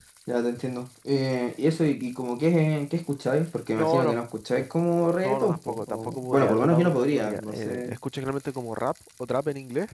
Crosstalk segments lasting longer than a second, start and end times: 5.2-8.0

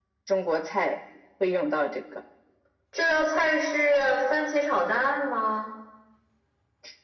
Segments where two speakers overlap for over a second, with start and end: none

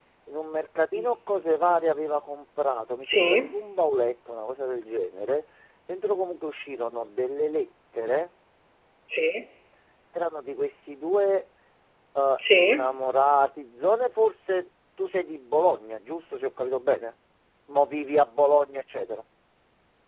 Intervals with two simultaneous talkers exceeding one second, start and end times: none

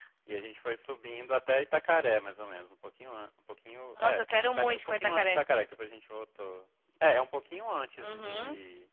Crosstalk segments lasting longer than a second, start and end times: 4.0-5.4

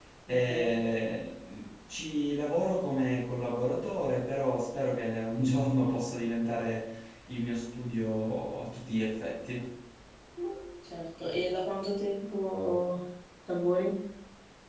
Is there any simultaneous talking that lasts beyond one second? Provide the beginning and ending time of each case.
none

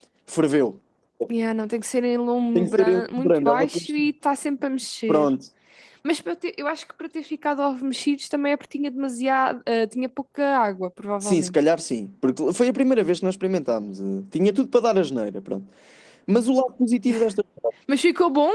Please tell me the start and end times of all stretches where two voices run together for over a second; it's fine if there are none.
2.6-4.0

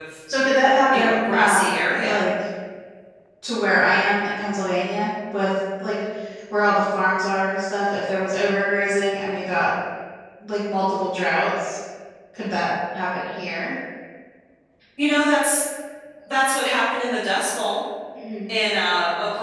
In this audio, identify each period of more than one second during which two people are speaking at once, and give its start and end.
0.9-2.1

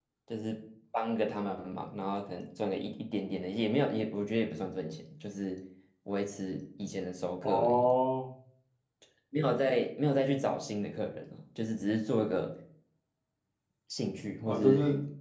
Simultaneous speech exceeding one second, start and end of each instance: none

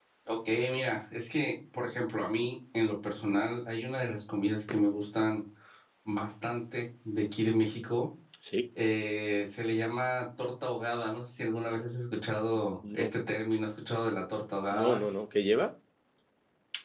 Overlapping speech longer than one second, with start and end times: none

